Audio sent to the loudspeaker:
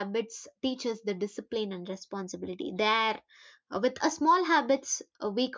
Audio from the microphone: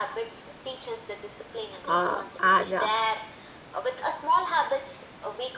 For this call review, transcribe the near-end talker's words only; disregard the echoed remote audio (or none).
uh, our uh,